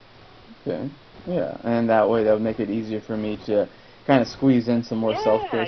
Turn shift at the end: Yes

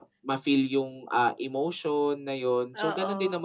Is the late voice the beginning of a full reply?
No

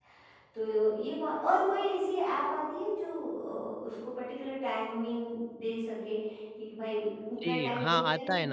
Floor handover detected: Yes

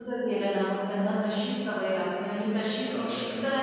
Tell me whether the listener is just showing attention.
Yes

